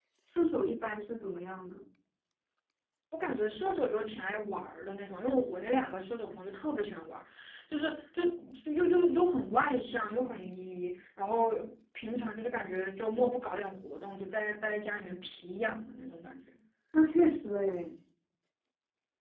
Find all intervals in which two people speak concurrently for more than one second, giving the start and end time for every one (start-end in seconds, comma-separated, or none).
none